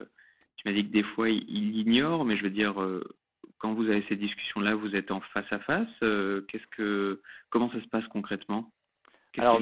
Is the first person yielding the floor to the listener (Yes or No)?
Yes